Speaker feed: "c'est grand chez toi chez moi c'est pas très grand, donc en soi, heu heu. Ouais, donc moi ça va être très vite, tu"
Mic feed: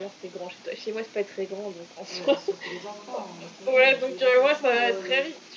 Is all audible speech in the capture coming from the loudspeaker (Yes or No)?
No